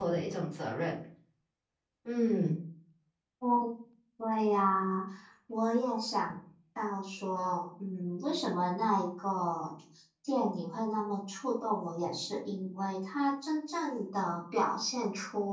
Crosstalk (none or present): none